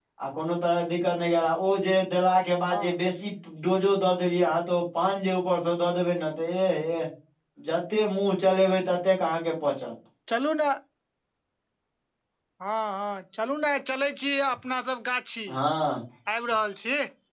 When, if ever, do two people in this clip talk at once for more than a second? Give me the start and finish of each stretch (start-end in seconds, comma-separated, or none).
none